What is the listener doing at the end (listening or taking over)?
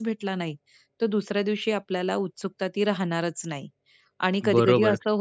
taking over